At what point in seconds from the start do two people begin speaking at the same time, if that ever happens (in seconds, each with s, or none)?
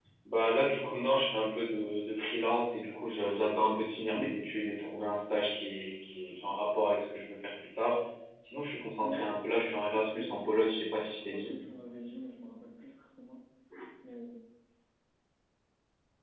9.0 s